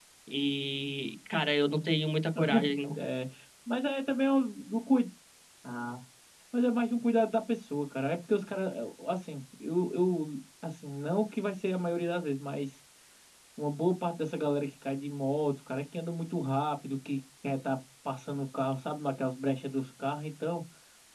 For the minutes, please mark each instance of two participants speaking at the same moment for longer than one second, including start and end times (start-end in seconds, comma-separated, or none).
none